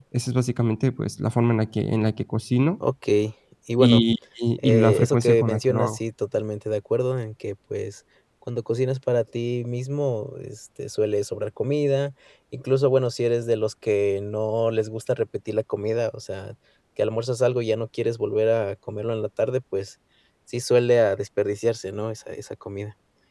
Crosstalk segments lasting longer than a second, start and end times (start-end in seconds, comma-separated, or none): 4.6-6.0